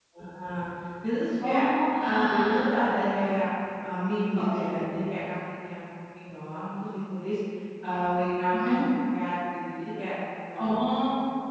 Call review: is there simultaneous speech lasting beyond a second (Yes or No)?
Yes